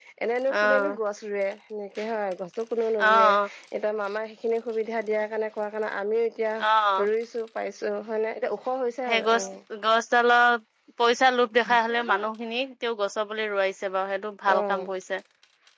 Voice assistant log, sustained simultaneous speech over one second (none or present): none